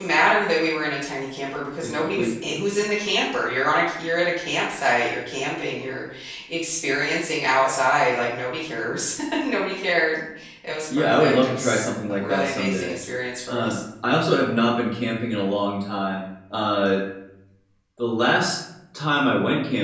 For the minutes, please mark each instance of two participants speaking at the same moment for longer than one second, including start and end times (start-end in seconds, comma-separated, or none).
10.9-13.0